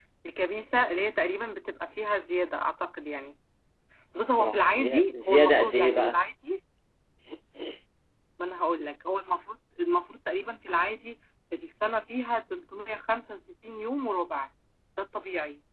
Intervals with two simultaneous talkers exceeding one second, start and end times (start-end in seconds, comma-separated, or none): 4.4-6.1